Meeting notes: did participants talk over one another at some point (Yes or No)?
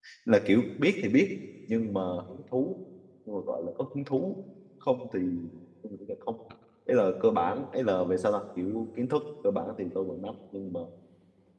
No